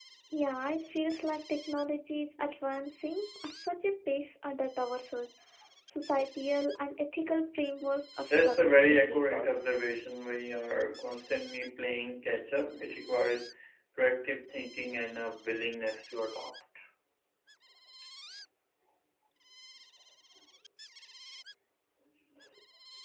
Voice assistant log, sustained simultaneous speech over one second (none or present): present